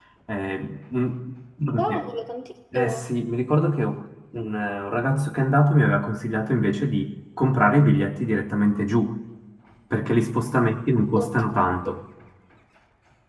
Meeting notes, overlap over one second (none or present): none